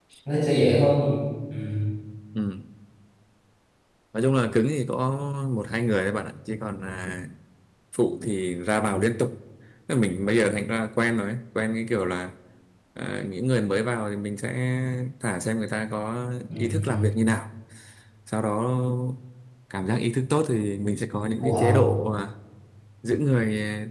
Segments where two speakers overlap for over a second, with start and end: none

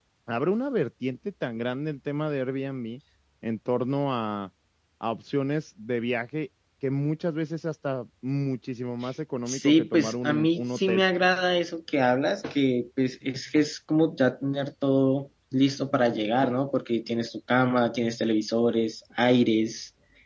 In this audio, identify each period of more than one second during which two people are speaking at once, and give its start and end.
9.5-11.0

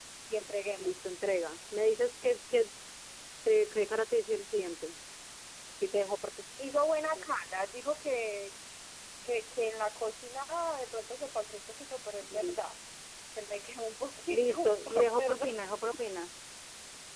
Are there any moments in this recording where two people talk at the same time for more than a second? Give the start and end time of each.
14.3-15.5

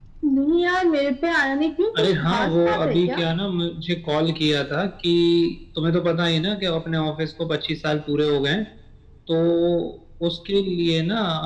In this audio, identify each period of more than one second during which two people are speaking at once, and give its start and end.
2.0-3.2

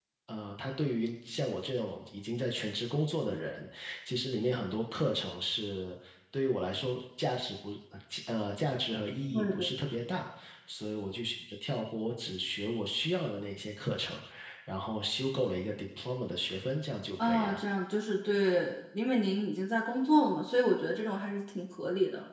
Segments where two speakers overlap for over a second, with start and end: none

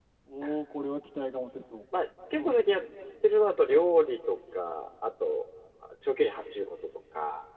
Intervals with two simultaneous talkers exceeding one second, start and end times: none

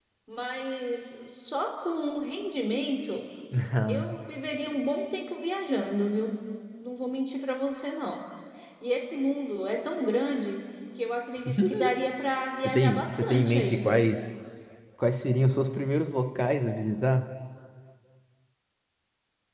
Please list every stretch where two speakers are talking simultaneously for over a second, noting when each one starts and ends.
12.6-14.1

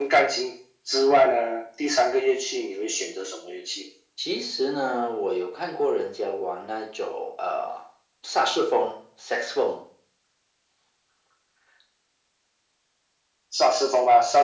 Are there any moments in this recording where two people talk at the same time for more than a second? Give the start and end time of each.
none

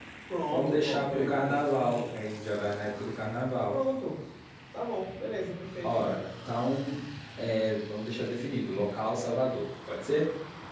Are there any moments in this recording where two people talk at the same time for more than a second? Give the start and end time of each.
0.5-2.2

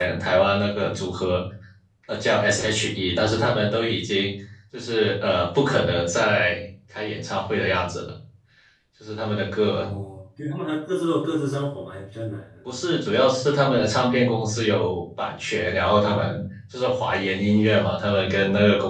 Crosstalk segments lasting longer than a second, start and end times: none

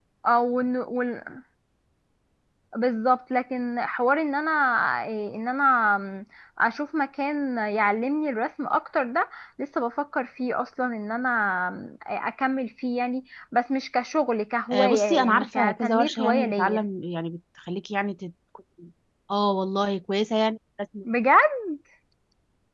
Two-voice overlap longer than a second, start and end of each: 14.7-16.8

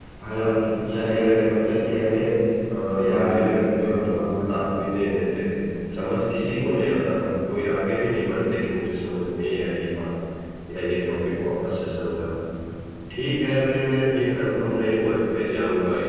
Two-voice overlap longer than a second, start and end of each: 3.0-4.2

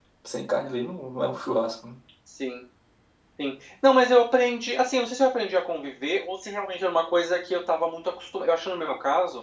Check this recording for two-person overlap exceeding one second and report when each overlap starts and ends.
none

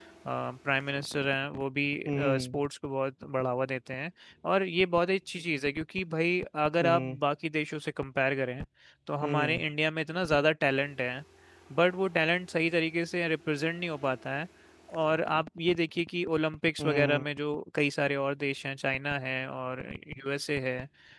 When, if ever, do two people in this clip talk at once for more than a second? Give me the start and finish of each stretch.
none

